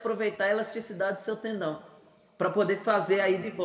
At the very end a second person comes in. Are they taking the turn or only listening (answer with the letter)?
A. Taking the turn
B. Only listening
B